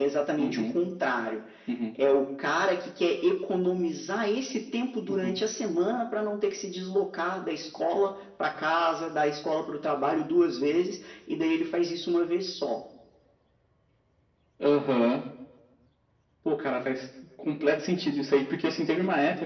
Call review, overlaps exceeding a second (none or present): none